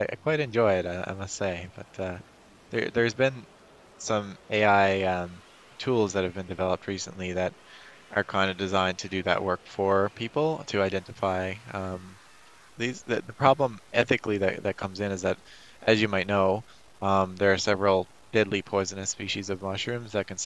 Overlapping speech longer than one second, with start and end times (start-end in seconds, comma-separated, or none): none